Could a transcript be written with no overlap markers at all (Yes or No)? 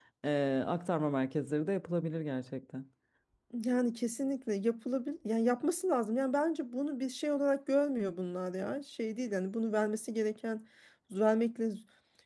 Yes